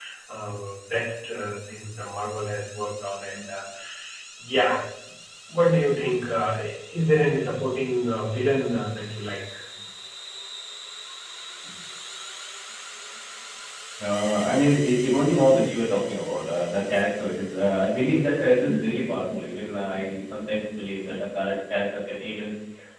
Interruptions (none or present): none